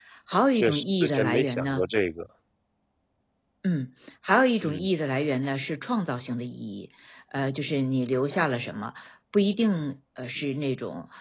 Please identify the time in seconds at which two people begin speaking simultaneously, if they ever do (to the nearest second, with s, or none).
1 s